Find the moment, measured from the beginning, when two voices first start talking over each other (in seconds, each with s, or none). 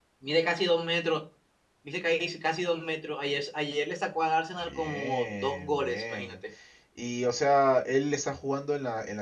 4.6 s